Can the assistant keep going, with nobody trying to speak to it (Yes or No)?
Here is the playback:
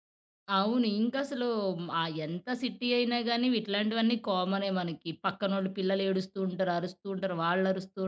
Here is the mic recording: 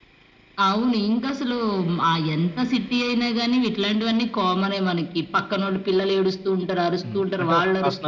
No